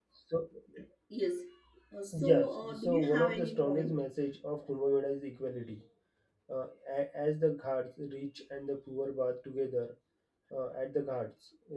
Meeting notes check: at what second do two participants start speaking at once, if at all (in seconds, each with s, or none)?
2.1 s